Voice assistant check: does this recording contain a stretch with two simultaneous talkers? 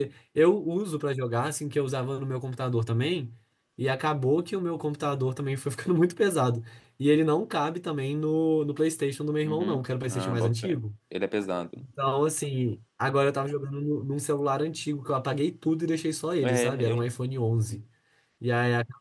Yes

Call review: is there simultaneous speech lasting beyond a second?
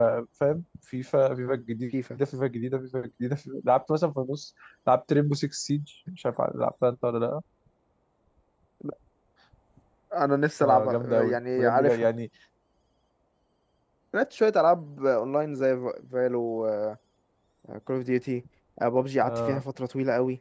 Yes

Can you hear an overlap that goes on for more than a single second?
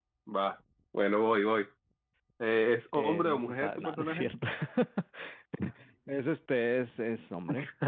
Yes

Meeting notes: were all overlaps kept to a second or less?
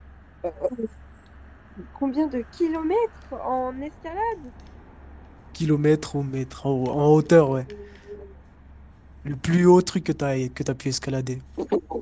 Yes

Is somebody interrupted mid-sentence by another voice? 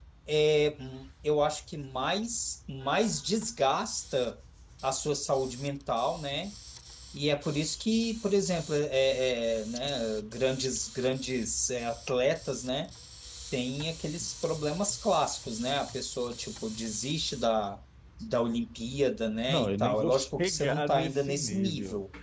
Yes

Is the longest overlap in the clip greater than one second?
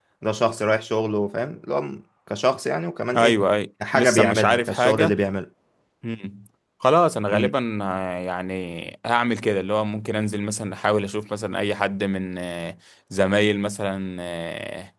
Yes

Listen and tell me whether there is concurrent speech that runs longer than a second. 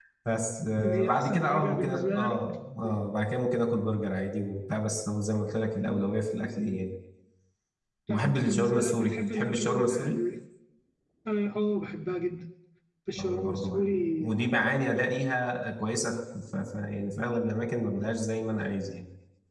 Yes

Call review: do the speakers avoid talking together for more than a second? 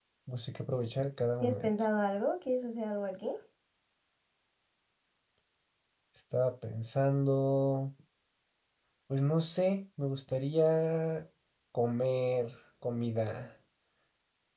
Yes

